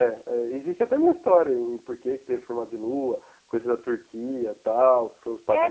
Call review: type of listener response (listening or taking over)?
taking over